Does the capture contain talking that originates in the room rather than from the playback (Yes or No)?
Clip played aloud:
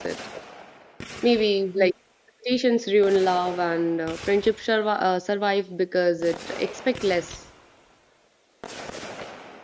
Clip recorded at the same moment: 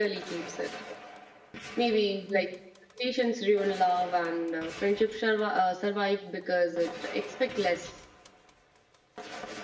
No